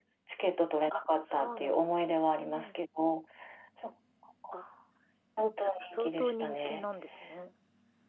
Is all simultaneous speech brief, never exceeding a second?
No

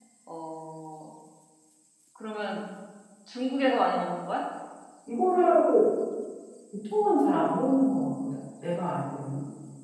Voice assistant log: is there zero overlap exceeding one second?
Yes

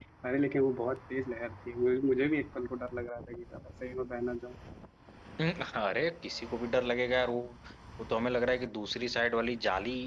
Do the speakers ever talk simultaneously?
No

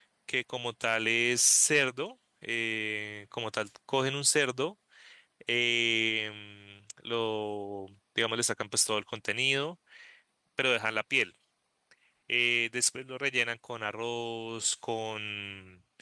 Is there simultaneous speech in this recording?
No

